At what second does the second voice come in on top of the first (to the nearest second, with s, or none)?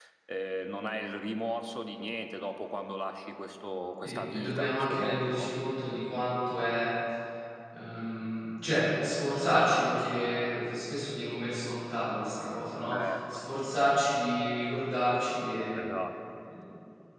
4 s